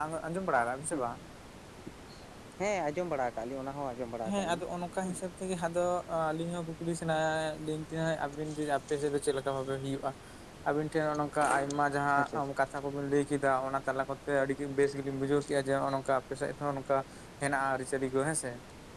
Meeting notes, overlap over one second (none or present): none